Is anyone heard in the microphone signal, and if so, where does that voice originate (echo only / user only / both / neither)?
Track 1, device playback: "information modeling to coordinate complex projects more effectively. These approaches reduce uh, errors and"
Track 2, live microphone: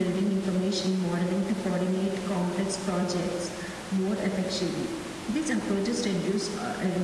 echo only